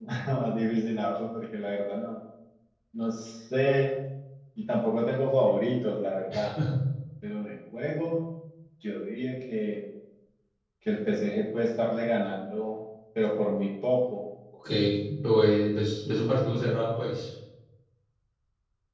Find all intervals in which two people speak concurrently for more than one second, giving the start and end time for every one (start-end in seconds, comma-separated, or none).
none